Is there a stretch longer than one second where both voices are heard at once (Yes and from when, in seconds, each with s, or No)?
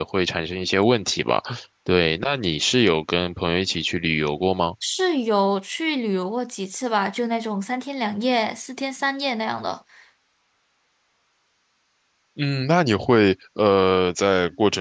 No